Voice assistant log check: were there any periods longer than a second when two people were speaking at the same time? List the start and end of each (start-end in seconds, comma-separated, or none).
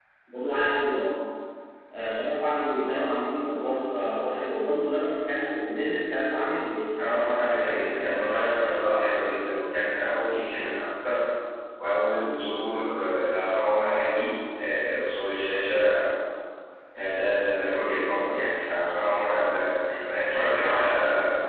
7.1-8.8